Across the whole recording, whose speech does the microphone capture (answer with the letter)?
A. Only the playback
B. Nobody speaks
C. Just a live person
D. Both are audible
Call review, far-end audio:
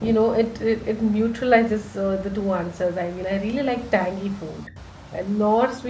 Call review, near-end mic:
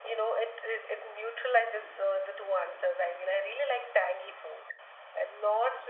A